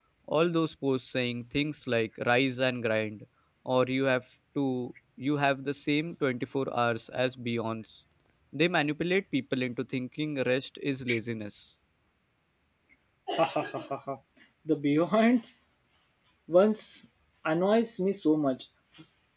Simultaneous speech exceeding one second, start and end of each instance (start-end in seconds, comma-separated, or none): none